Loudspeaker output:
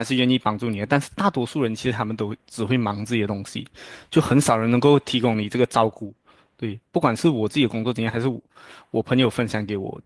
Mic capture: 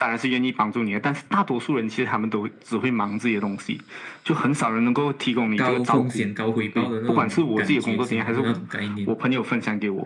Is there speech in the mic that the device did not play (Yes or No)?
Yes